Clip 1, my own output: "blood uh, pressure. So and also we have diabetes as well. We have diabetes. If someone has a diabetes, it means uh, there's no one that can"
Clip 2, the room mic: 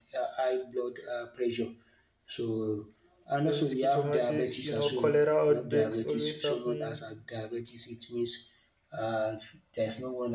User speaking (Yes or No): Yes